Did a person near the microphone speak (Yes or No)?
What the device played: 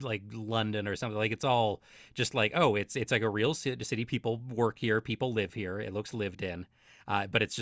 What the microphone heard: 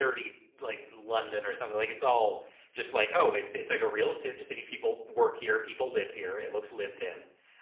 No